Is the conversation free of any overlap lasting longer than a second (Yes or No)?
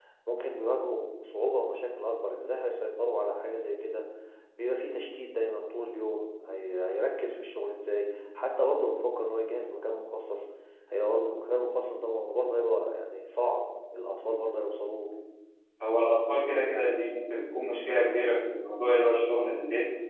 Yes